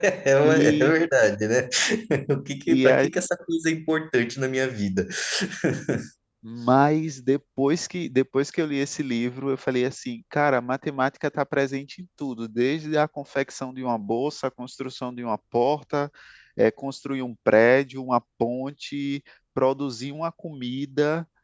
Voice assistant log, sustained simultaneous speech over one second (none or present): none